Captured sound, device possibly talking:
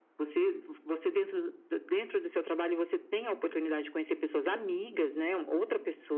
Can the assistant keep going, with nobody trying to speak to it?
Yes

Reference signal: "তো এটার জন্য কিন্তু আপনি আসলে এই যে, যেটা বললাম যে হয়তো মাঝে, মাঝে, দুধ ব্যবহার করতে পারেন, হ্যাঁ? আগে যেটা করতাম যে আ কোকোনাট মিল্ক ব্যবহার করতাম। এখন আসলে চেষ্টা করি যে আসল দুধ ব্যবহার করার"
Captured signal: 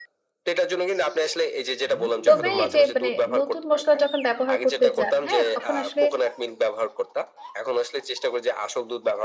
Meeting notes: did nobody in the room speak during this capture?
No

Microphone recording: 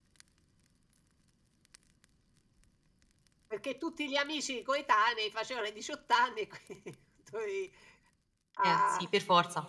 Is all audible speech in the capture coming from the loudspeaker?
No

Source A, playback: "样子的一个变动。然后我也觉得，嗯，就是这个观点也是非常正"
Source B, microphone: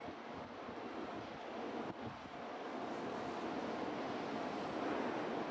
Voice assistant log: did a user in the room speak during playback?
No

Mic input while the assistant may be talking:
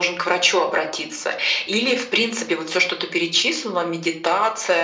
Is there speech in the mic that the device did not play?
No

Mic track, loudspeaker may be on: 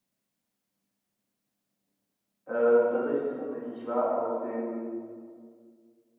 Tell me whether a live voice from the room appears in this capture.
Yes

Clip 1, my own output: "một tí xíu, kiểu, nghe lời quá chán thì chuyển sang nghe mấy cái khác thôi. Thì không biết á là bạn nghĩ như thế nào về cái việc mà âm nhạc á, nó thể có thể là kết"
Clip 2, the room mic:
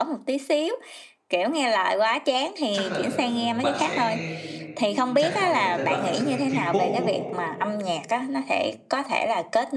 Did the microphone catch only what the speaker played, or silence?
No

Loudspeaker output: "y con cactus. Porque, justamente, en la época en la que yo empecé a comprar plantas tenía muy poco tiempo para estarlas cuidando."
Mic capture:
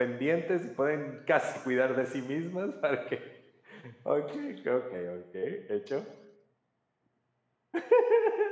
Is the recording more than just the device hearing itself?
Yes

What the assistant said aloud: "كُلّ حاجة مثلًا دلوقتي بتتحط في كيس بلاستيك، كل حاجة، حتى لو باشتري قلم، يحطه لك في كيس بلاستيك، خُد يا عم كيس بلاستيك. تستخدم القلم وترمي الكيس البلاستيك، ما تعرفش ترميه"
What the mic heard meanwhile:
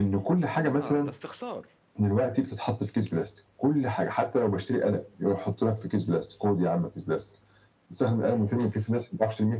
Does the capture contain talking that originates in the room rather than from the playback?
Yes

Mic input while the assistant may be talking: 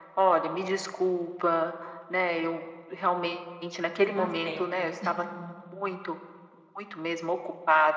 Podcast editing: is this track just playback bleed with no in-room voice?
No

